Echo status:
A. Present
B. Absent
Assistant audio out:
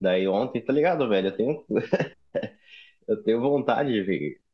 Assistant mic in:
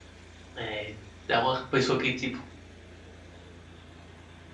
B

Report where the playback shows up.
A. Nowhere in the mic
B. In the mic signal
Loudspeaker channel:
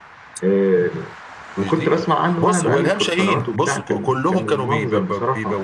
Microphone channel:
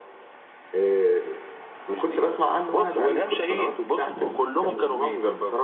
B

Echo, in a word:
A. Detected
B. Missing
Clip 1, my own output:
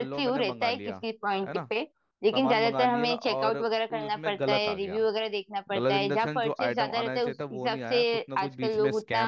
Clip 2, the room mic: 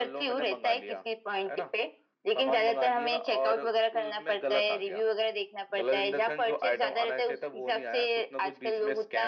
A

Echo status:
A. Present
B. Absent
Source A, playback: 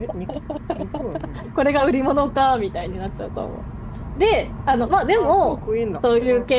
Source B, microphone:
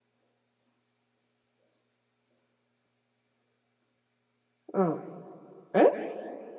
B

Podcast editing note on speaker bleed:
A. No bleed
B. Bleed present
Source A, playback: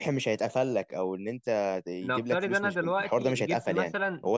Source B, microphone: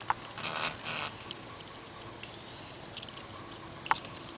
A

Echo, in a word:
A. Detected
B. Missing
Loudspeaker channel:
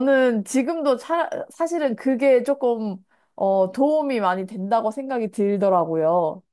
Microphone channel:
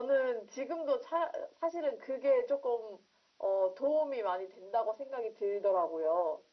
A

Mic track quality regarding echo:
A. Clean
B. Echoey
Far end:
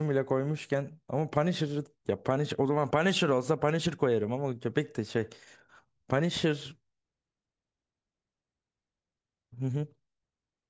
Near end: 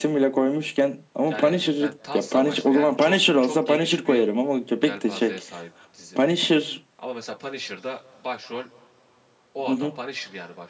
B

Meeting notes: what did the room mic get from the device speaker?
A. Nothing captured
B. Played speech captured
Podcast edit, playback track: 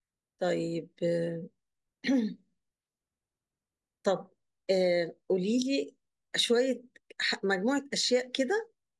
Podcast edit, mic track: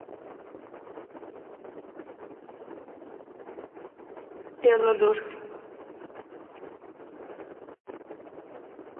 A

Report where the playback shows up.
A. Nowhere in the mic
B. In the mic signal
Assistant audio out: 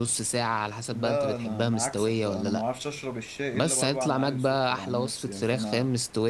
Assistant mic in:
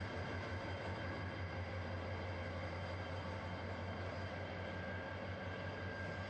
A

